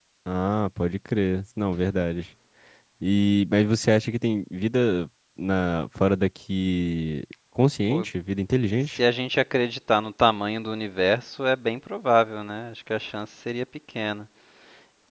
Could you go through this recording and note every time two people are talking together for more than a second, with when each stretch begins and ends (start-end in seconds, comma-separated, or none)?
none